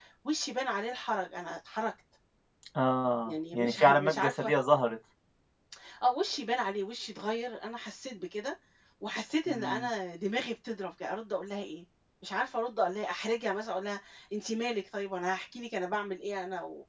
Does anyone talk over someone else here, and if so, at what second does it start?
3.3 s

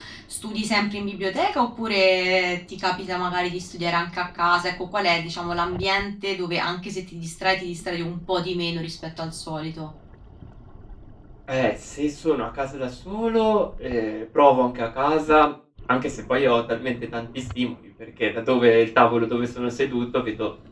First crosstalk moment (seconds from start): none

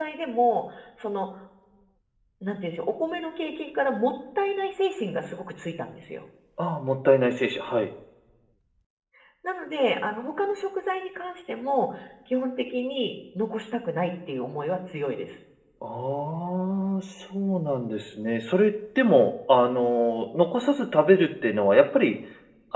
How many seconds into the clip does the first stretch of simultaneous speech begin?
none

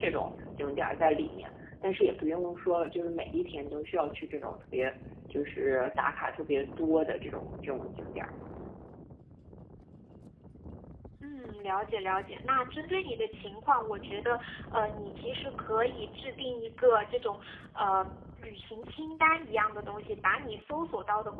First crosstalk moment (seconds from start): none

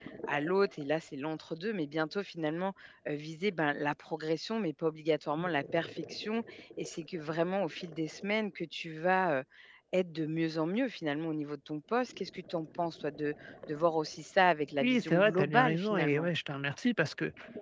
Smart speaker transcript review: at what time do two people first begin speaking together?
14.8 s

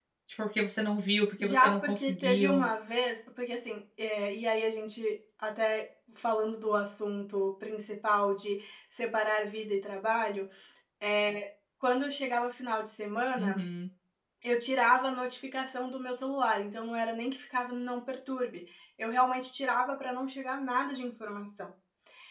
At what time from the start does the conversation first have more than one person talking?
1.4 s

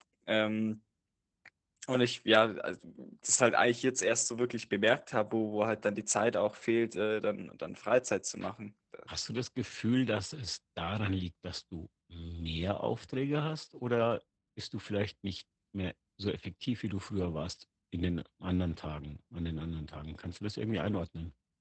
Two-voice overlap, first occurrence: none

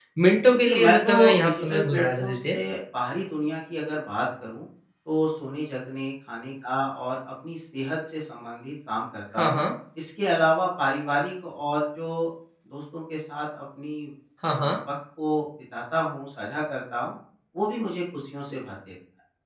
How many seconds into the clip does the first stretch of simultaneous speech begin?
0.5 s

